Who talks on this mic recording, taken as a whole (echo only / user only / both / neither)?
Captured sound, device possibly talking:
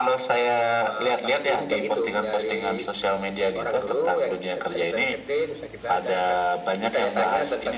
echo only